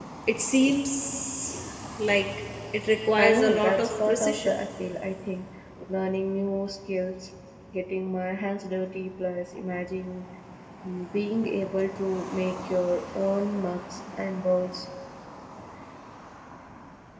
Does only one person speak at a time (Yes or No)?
No